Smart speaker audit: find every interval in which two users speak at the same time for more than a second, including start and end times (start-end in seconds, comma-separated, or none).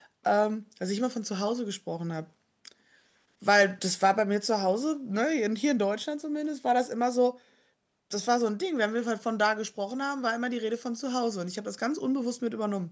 none